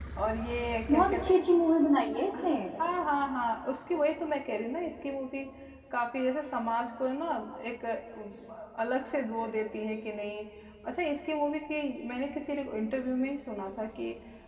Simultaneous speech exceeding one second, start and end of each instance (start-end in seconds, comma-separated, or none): none